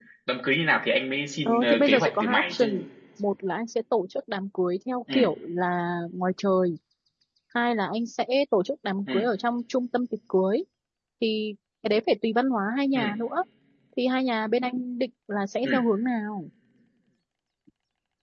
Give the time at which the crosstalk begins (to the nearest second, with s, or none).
1 s